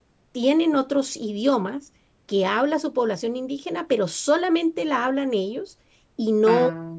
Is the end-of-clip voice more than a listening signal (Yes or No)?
No